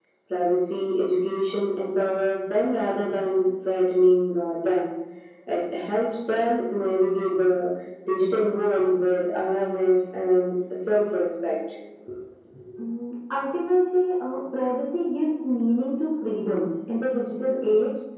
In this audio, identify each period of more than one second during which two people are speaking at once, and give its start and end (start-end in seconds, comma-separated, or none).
none